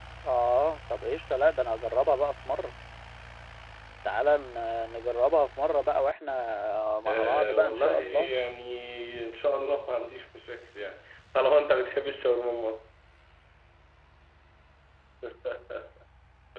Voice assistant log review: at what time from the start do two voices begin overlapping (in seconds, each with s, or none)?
7.1 s